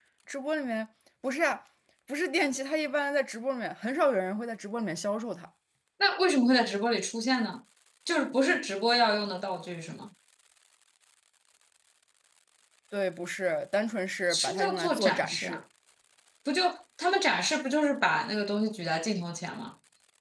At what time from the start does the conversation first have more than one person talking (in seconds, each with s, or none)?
14.3 s